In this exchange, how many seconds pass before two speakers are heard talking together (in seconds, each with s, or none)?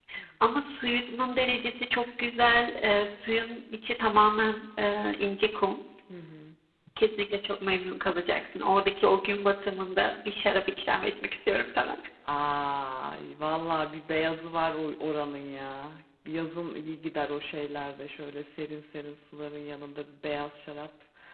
none